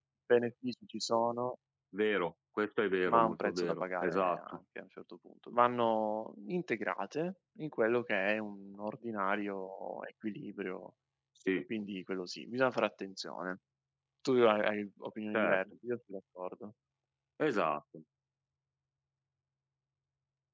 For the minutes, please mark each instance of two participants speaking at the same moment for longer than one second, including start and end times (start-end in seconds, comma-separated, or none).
3.1-4.4